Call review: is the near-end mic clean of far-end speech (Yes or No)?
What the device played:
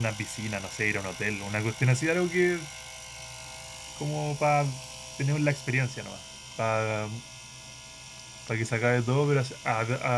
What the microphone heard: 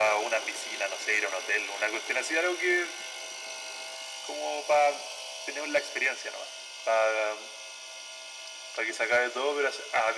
No